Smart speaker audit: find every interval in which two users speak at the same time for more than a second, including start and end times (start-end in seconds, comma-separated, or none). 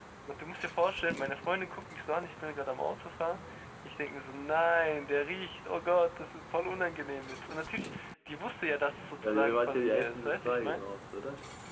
9.2-10.9